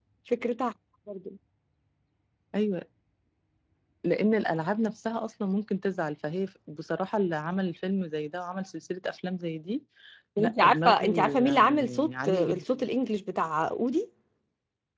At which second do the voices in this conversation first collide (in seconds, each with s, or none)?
10.4 s